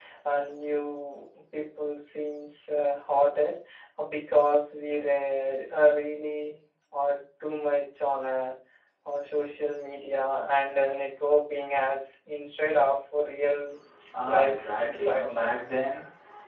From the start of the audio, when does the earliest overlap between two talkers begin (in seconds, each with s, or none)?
14.2 s